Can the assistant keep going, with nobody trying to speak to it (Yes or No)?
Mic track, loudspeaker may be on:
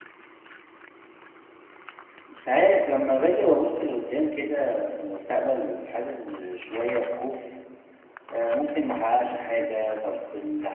No